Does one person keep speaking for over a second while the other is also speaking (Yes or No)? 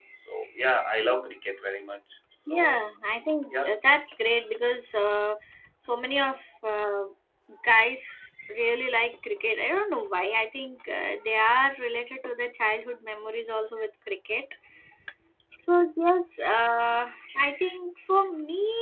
No